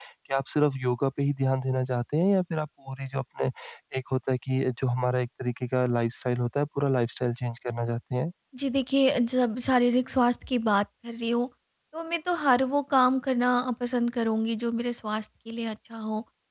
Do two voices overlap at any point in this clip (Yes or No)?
No